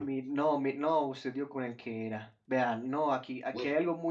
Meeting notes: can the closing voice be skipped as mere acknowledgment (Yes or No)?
Yes